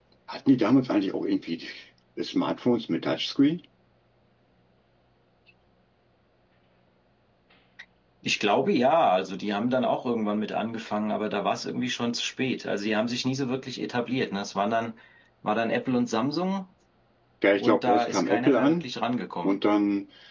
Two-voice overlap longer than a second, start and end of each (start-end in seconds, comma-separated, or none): 17.6-18.8